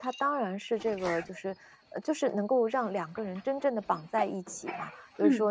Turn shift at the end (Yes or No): No